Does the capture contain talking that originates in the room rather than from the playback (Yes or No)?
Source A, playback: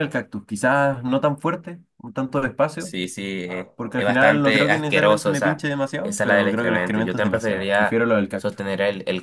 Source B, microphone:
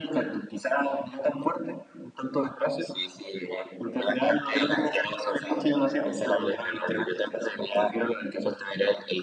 No